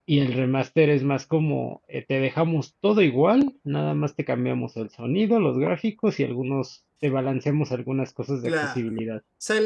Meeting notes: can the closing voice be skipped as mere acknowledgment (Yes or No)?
No